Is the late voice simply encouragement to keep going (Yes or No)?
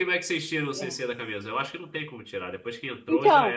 No